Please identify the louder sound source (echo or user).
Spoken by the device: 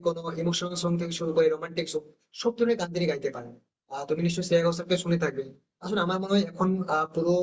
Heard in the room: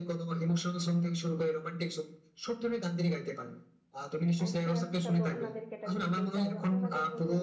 echo